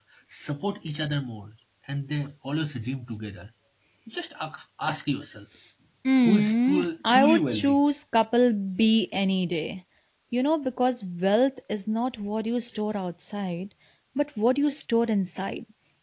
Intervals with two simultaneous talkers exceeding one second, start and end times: 6.2-7.8

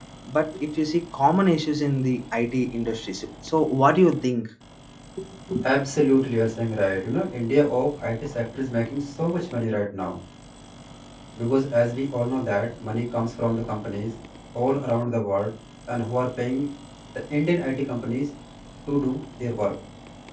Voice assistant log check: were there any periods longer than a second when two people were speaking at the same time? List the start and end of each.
none

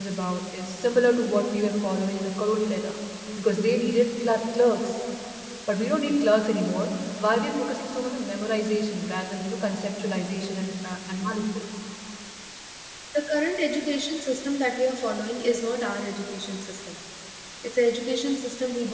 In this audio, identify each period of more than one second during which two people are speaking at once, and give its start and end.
none

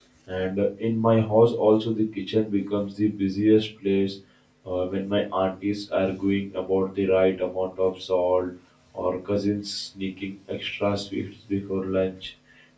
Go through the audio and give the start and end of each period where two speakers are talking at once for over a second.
none

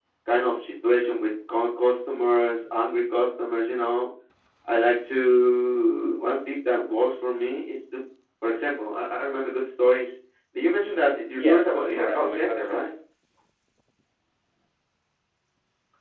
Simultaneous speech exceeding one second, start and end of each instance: 11.4-12.8

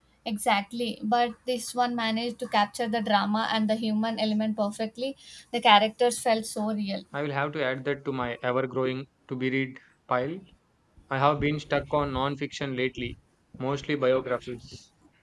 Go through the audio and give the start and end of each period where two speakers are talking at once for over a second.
none

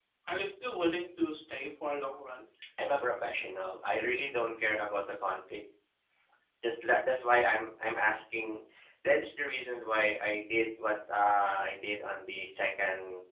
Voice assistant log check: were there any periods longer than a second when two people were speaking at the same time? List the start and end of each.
none

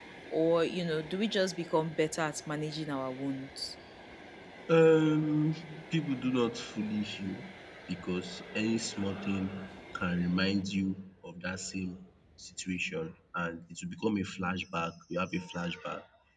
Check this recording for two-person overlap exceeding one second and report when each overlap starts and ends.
none

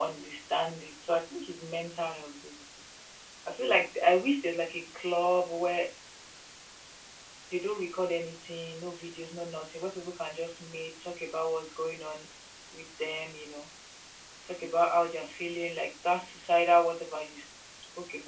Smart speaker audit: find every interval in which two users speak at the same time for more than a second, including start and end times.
none

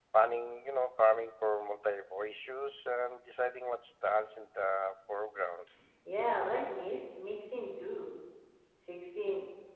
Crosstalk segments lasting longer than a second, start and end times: none

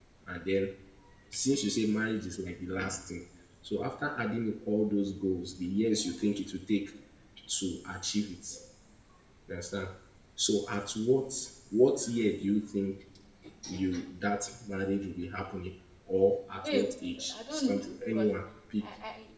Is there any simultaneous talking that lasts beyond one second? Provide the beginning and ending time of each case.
16.6-18.3

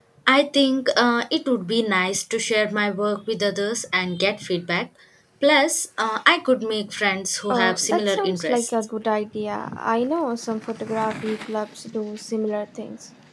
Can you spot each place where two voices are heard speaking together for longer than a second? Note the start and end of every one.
7.5-8.7

